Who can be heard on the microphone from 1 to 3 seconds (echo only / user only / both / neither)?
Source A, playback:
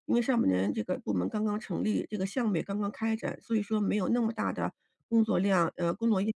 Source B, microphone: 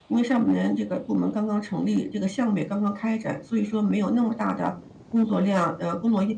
echo only